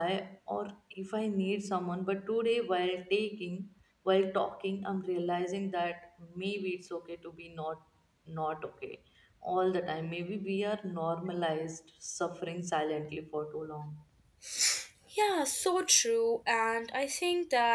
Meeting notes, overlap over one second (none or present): none